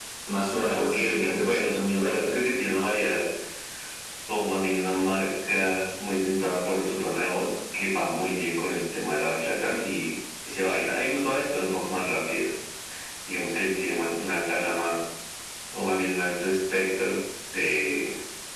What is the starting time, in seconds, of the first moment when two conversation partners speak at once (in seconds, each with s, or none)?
0.7 s